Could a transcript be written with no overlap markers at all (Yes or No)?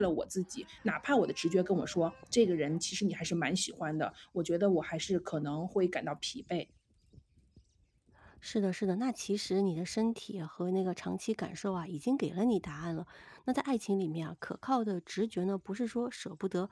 Yes